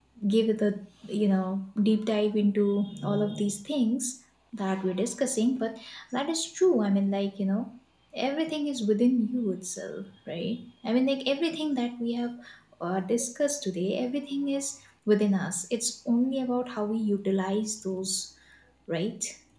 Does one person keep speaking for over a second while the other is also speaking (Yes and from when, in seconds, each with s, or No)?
No